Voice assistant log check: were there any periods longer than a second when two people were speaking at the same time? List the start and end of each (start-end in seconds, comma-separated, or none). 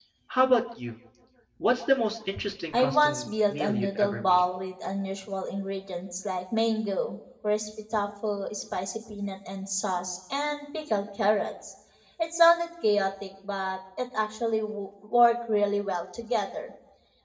2.7-4.4